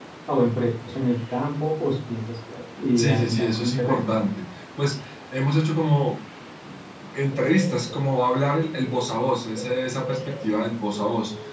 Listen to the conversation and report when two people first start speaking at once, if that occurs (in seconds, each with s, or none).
3.0 s